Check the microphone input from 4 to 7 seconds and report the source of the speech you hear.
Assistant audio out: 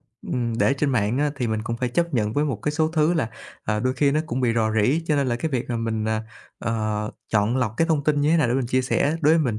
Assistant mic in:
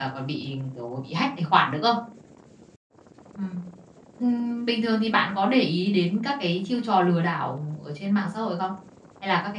user only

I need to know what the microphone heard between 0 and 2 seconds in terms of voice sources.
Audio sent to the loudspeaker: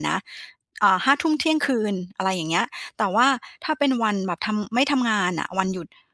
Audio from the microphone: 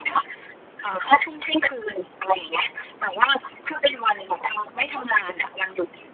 echo only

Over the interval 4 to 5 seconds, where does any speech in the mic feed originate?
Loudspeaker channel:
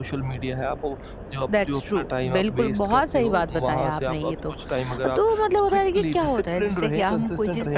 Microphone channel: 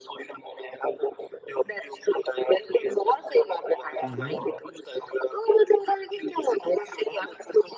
both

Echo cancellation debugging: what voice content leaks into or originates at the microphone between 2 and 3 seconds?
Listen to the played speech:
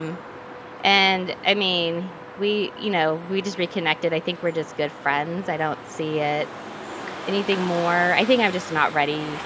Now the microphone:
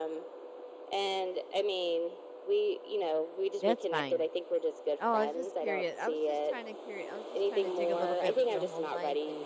echo only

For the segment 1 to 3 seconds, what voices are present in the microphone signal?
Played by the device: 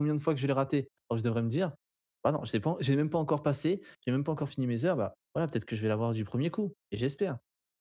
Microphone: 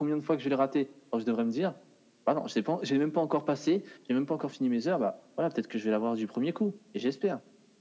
echo only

